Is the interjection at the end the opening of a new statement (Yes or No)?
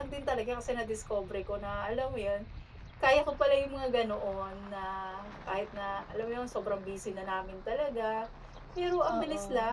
No